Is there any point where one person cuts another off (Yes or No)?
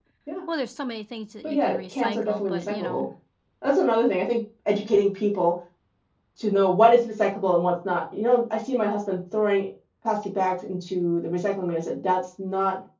Yes